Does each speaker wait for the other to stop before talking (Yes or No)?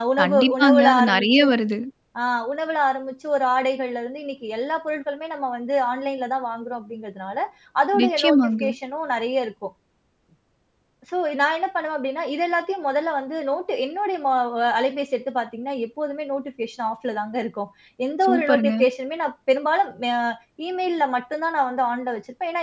No